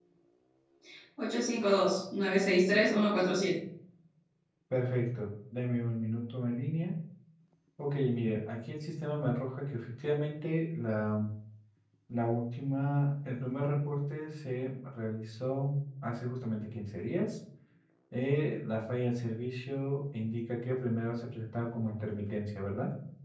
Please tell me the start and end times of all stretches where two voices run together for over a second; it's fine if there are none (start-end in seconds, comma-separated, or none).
none